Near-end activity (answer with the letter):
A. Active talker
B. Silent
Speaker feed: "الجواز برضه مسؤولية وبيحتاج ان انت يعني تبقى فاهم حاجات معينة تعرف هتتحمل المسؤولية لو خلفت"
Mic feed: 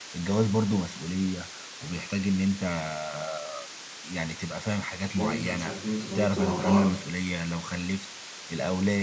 A